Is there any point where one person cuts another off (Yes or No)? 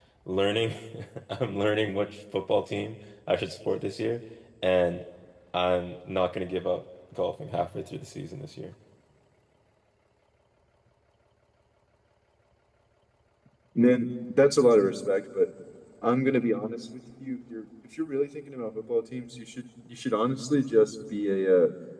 No